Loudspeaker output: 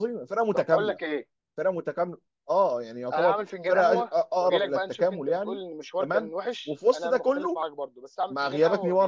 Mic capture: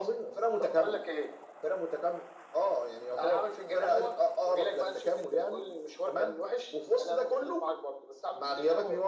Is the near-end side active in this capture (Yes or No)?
No